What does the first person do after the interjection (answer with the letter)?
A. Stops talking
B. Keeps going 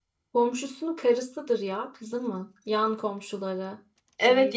A